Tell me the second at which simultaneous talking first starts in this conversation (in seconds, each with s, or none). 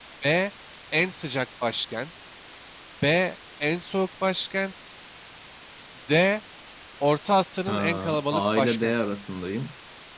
7.7 s